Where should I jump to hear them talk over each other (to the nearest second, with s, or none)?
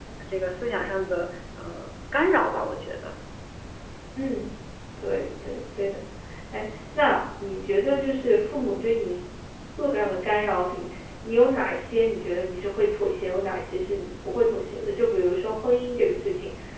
none